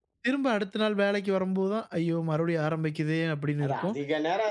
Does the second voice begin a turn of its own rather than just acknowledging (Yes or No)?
Yes